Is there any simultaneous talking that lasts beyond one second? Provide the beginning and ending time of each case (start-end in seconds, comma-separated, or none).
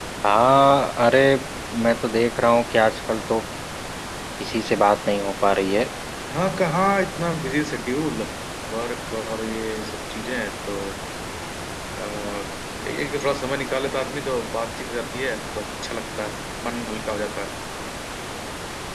none